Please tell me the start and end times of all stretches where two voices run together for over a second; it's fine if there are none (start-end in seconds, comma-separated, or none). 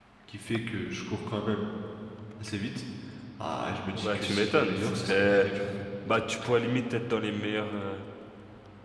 3.9-5.5